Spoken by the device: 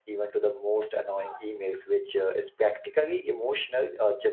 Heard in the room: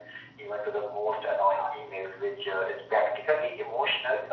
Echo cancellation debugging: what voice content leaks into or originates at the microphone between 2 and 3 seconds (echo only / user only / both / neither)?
echo only